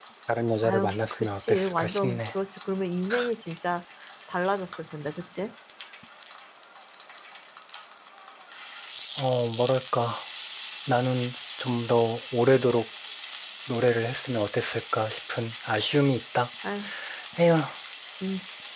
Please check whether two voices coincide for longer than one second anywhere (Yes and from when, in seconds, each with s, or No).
Yes, from 0.6 s